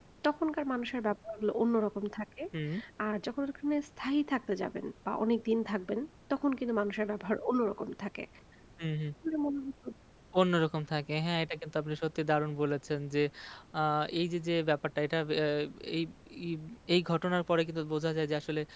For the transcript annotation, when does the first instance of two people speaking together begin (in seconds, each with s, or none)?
none